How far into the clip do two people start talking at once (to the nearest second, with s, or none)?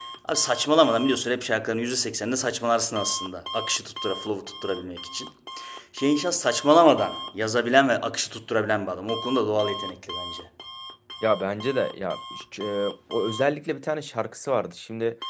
none